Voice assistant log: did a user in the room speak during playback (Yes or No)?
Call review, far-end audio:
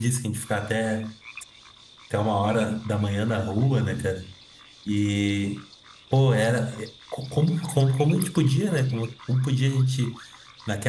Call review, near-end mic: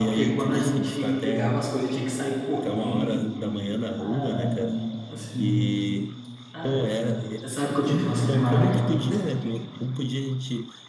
Yes